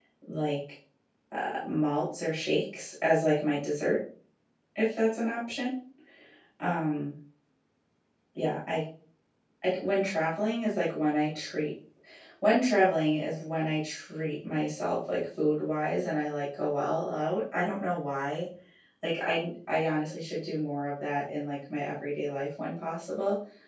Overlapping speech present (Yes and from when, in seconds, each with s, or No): No